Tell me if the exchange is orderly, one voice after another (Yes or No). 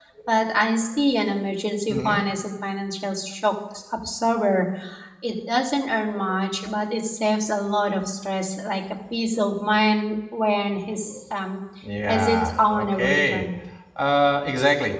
No